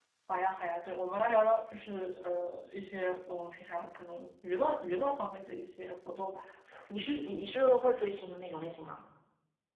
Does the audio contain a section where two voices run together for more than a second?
No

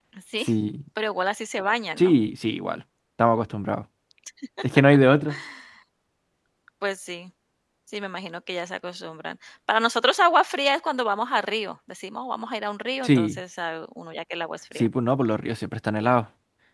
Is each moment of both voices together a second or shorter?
Yes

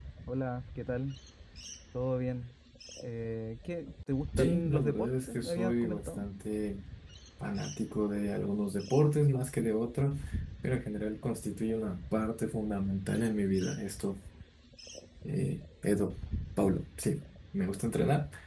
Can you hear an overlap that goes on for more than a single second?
Yes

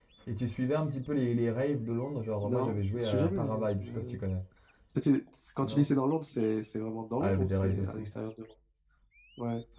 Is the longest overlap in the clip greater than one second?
Yes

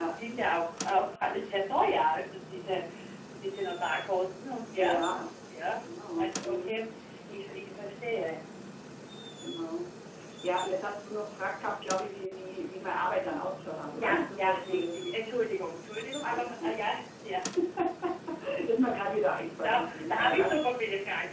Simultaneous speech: Yes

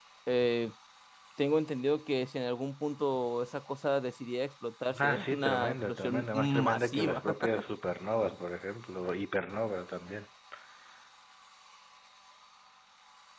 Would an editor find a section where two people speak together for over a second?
Yes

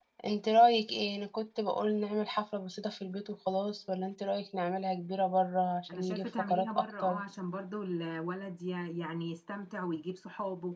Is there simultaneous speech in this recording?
Yes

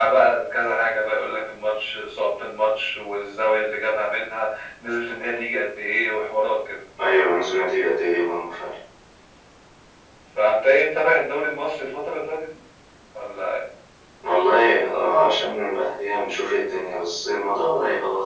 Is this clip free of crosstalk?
Yes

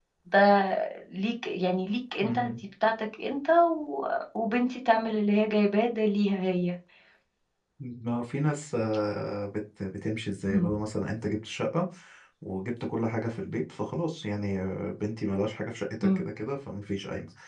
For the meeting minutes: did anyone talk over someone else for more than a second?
No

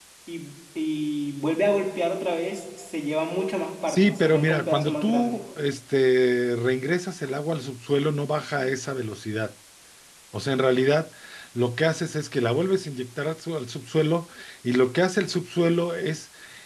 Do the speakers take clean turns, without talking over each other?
No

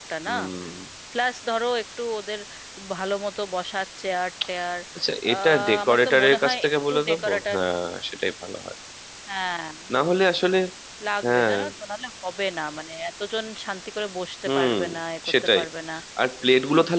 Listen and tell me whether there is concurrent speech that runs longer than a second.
Yes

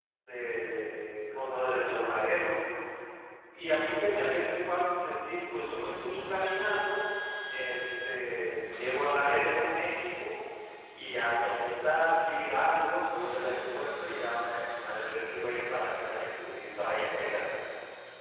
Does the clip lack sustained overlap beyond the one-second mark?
Yes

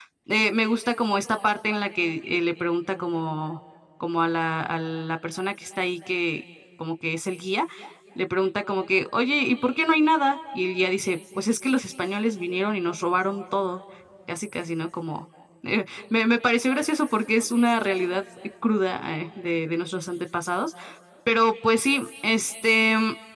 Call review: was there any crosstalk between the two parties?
No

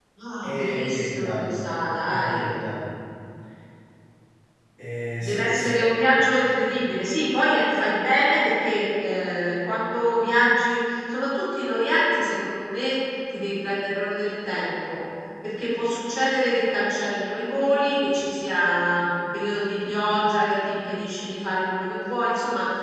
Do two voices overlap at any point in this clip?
Yes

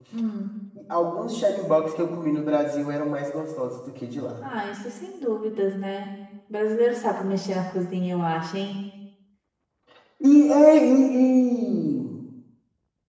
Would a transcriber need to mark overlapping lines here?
No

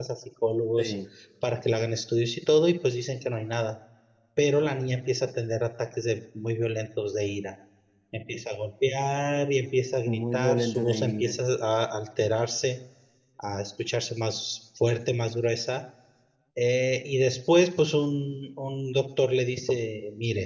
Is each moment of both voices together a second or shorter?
No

